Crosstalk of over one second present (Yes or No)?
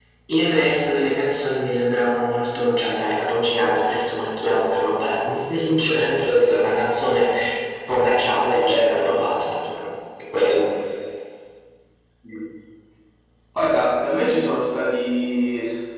No